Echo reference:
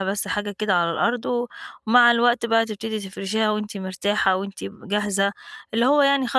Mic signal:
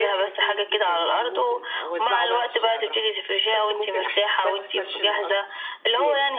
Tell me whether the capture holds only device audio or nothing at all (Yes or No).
No